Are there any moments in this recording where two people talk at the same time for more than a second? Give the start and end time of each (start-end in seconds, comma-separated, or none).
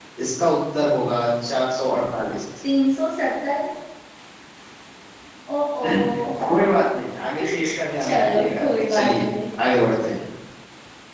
8.0-9.3